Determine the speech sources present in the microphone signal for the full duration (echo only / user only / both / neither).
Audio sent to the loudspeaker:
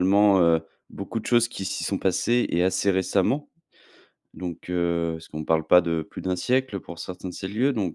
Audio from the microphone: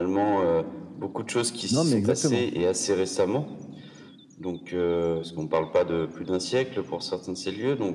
both